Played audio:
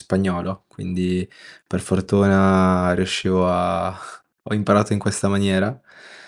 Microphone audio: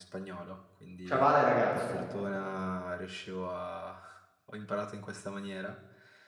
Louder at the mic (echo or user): user